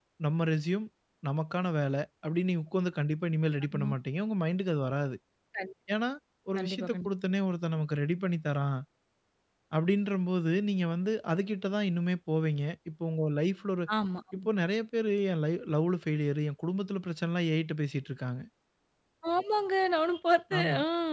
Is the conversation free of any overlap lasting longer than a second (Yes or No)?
Yes